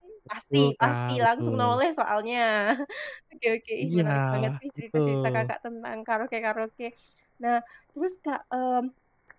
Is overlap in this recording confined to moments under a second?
No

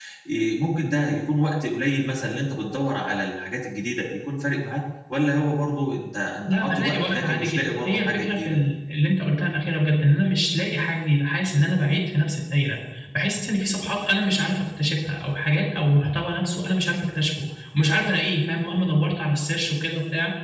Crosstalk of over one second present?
Yes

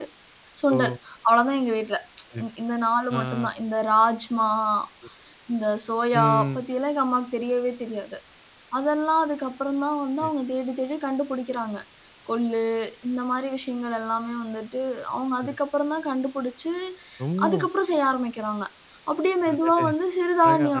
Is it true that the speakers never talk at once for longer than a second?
Yes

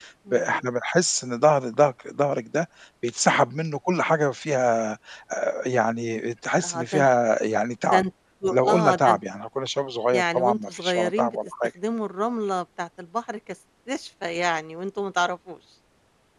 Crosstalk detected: Yes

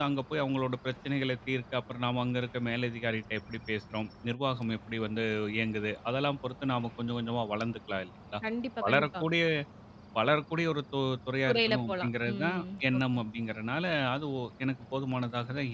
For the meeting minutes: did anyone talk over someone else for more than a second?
Yes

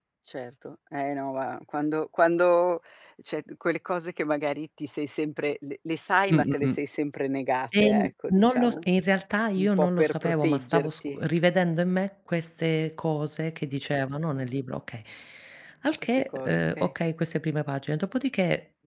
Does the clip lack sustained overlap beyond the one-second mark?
No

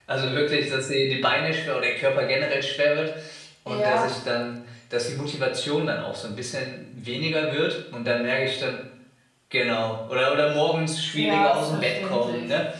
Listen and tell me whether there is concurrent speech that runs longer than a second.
Yes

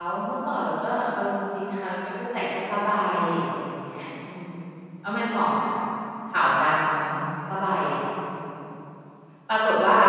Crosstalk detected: No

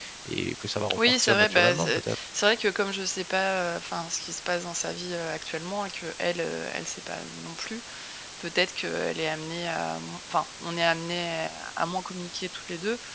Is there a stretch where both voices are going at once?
Yes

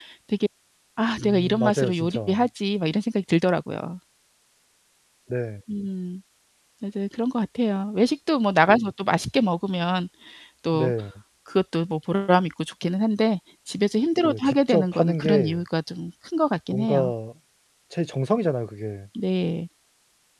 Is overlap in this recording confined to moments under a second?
No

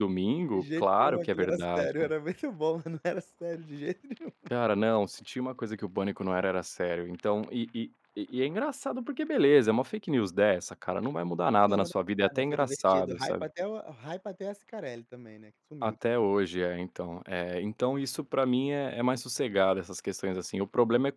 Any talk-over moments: Yes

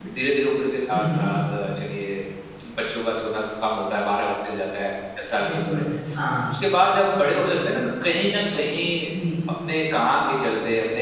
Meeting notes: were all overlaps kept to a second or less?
Yes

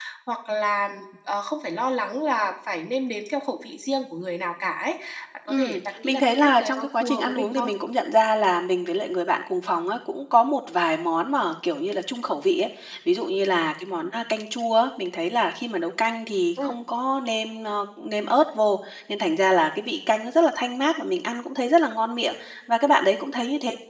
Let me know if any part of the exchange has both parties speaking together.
Yes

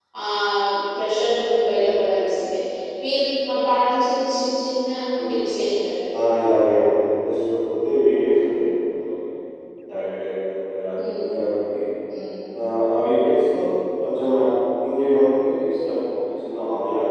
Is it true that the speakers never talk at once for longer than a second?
Yes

